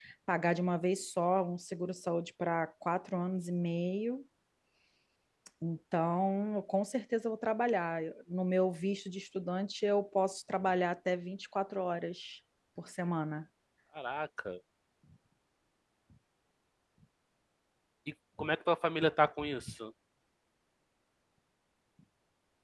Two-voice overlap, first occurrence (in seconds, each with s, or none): none